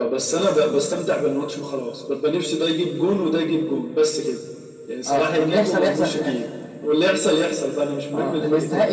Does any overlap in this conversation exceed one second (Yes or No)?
Yes